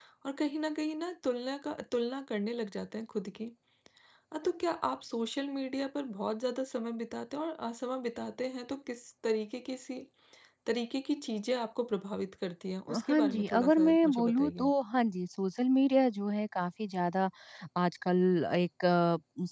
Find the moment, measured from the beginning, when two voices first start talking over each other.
12.9 s

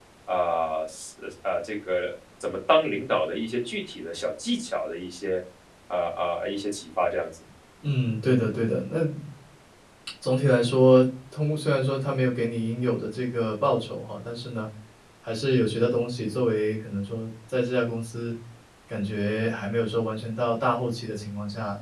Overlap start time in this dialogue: none

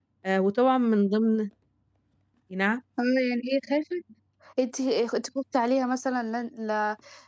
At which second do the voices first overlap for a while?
none

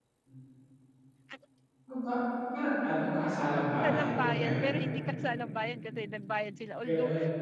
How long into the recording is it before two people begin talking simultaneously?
3.6 s

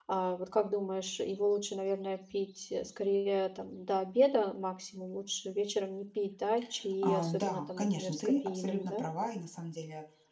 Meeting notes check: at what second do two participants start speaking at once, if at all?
7.0 s

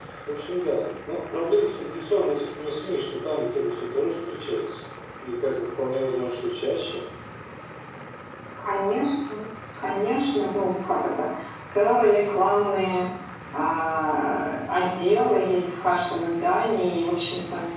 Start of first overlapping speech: none

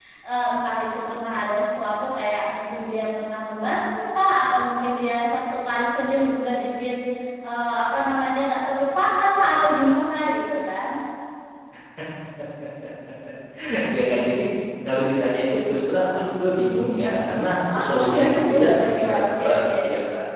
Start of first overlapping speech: 17.7 s

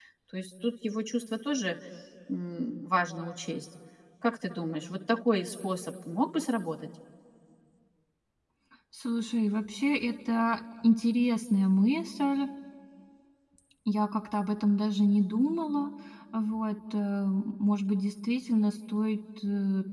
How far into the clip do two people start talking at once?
none

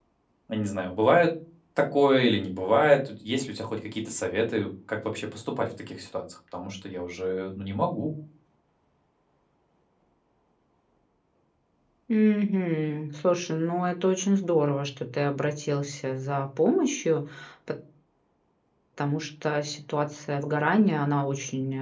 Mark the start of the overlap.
none

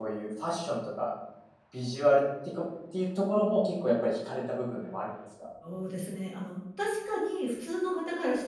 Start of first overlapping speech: none

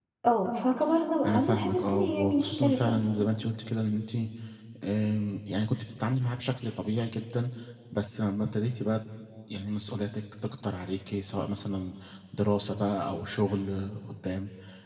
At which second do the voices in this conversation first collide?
1.2 s

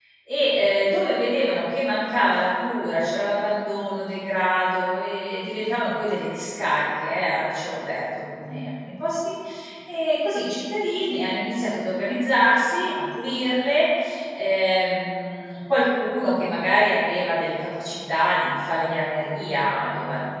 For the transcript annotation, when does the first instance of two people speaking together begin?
none

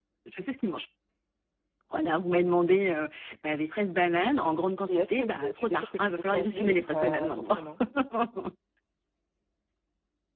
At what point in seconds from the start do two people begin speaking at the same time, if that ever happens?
4.9 s

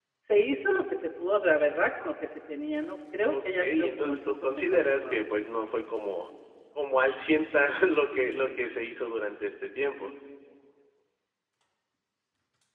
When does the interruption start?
3.2 s

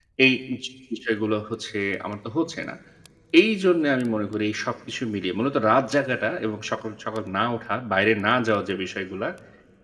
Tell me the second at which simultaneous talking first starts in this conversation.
none

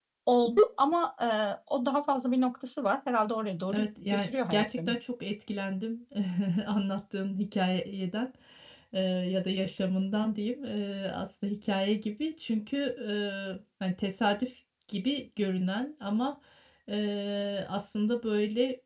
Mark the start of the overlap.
3.7 s

